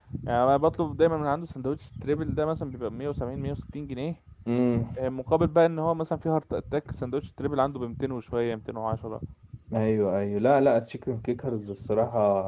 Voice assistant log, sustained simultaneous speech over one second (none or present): none